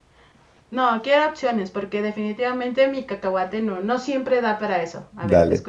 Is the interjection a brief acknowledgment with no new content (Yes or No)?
No